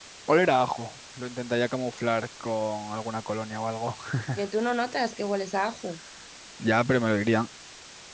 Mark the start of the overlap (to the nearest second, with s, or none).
none